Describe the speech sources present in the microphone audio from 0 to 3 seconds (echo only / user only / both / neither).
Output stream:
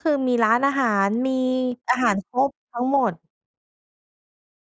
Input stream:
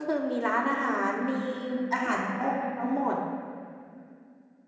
echo only